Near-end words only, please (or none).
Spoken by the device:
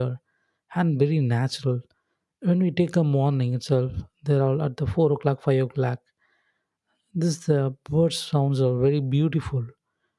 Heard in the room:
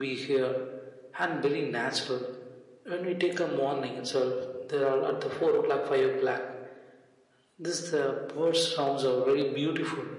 none